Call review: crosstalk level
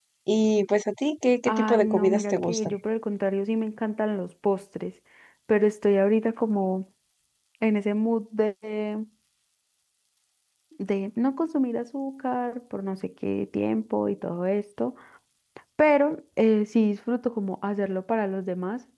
present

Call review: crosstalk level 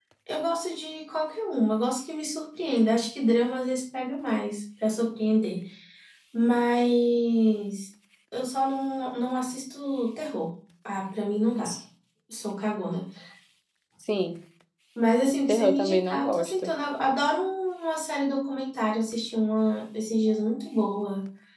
present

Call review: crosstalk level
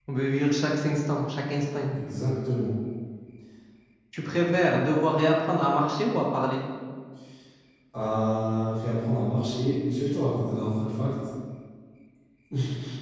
none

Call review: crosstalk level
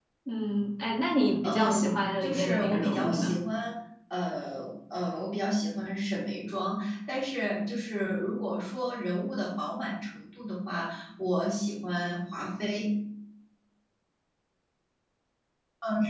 present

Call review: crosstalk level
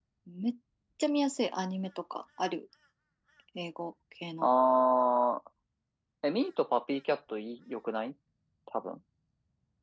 none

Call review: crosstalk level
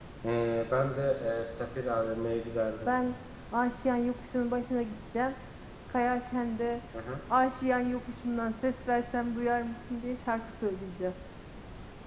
none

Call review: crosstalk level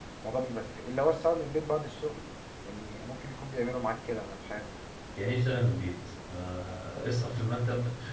none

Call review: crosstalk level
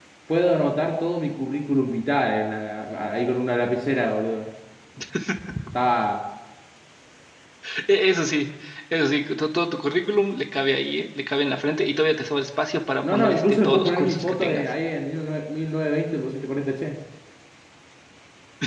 present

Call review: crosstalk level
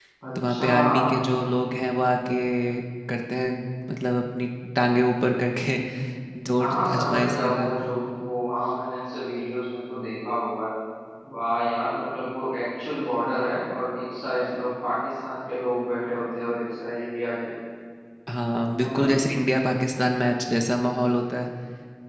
present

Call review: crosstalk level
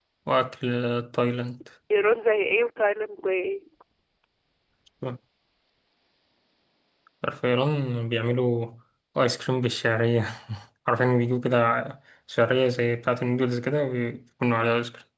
none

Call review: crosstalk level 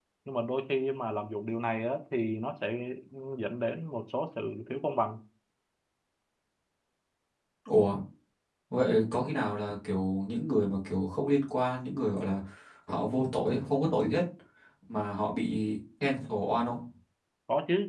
none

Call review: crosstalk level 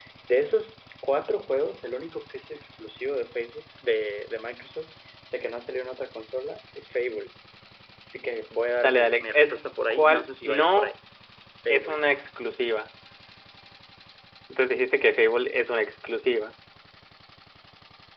present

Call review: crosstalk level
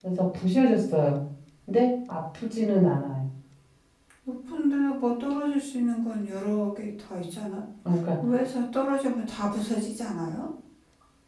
none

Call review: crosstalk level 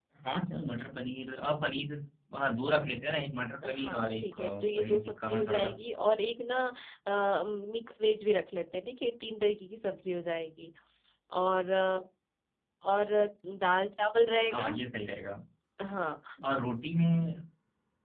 present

